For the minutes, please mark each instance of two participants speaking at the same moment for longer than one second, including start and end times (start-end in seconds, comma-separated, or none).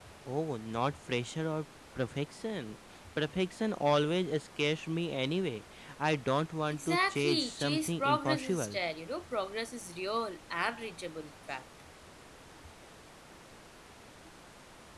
6.7-8.8